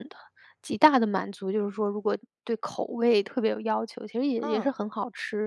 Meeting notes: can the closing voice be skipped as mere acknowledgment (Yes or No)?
Yes